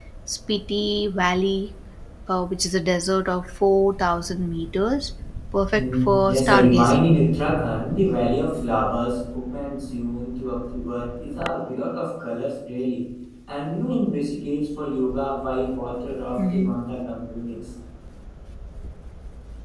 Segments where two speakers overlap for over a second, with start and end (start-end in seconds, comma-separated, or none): 5.7-7.0